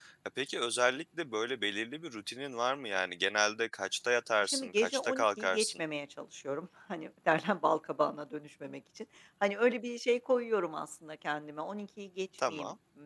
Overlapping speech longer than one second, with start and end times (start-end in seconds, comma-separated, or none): 4.4-5.8